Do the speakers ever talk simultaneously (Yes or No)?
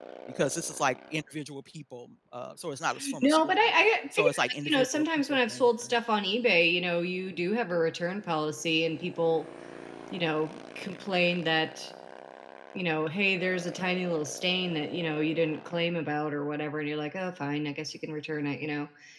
Yes